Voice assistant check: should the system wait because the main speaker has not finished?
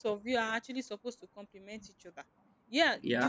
Yes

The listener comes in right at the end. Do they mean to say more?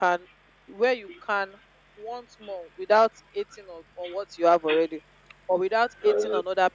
No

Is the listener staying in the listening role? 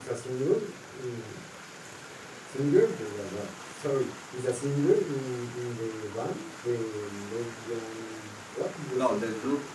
No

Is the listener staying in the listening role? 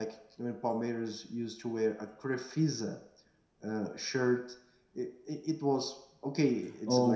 No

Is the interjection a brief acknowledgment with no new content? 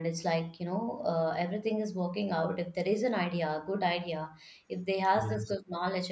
Yes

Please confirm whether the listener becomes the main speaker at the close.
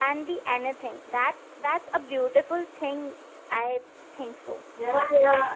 Yes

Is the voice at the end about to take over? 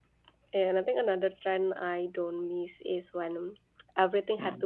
No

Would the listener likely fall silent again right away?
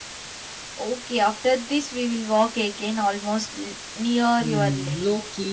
No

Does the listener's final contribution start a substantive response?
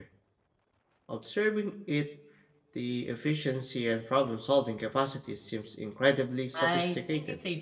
Yes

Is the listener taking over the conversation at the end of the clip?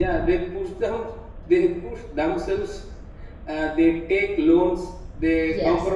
No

